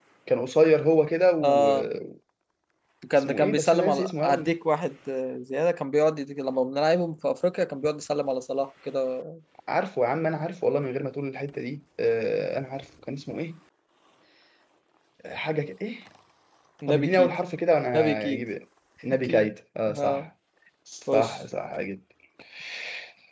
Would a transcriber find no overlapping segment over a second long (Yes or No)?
No